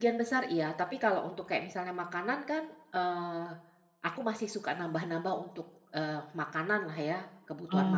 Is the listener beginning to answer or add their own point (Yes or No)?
Yes